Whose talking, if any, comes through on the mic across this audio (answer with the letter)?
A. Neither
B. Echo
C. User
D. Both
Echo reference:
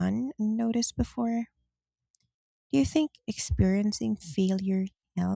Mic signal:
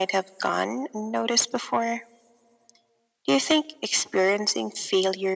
B